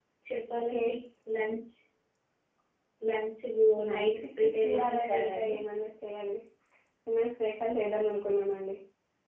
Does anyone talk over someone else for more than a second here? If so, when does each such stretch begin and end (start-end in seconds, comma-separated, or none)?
3.9-5.5